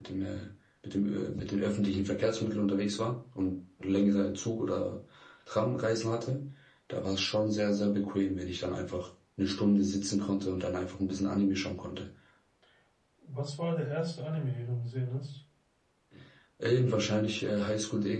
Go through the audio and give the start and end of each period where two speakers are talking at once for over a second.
none

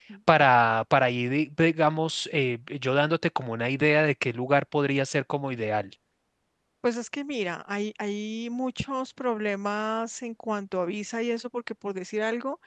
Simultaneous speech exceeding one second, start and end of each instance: none

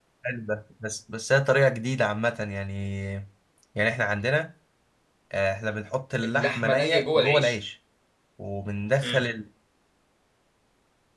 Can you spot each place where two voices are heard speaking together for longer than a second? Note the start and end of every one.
6.2-7.6

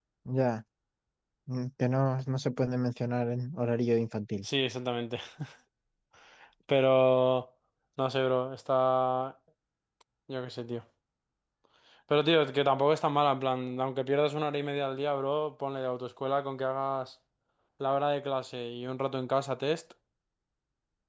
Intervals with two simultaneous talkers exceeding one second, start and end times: none

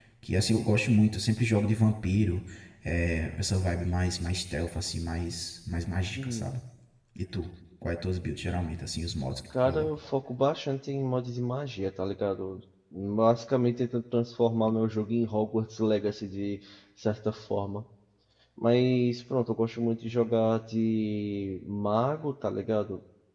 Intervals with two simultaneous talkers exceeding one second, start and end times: none

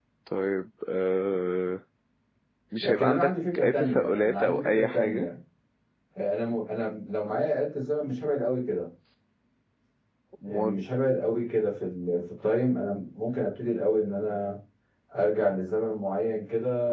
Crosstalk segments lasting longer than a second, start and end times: 2.8-5.3

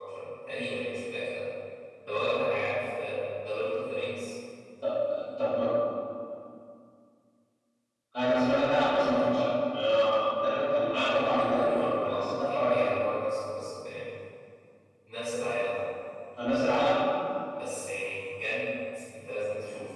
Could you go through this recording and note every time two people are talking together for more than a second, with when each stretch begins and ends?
10.9-12.9

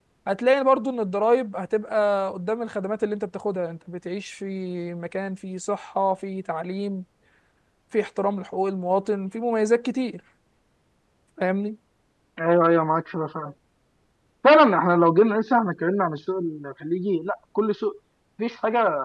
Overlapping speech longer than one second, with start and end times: none

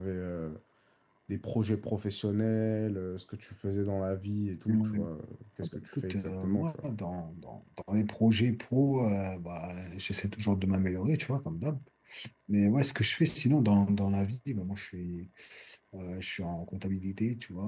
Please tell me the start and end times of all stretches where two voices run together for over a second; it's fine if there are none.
5.6-6.8

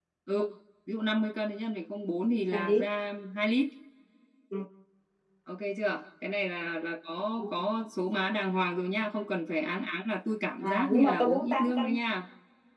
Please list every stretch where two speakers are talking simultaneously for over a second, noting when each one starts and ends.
10.6-12.0

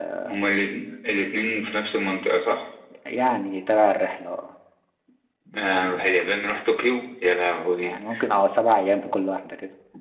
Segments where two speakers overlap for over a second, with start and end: none

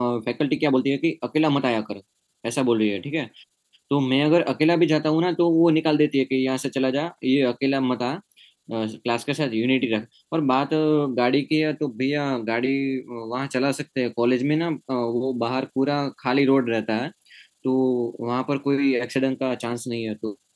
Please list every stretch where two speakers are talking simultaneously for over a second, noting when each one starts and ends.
none

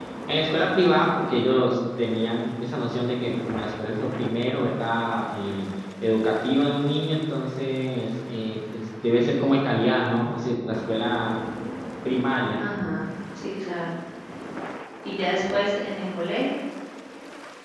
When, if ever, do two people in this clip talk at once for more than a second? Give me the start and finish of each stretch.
none

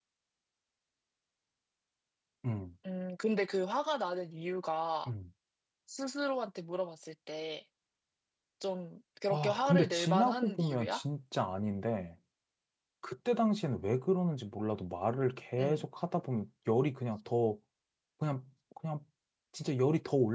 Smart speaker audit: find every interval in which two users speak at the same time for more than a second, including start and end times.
9.3-11.0

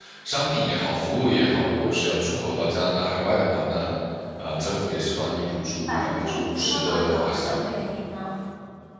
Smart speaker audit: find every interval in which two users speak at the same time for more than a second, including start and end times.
5.9-7.6

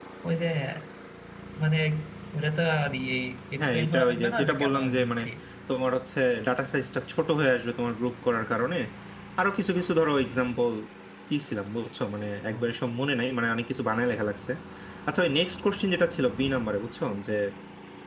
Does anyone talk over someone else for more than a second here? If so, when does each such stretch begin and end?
3.6-5.2

